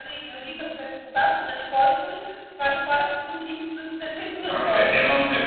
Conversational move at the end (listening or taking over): taking over